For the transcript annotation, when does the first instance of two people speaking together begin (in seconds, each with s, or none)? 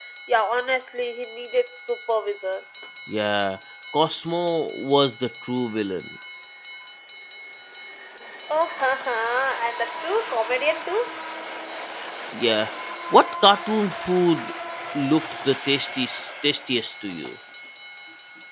none